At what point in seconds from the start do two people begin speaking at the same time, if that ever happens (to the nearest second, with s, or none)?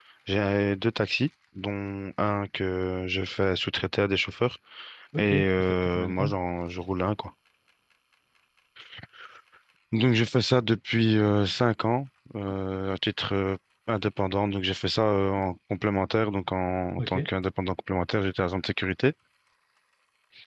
5 s